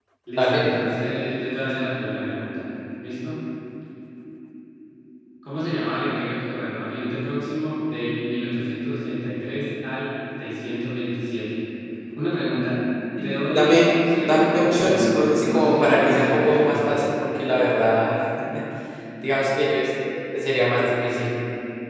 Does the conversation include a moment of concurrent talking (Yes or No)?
Yes